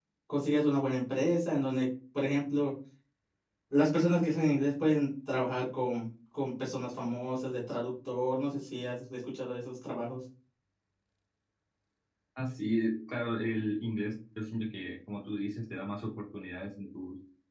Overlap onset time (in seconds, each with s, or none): none